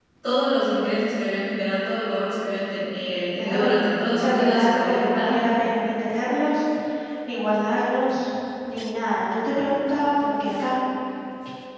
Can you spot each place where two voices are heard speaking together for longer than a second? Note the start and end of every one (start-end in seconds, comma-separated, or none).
4.2-5.4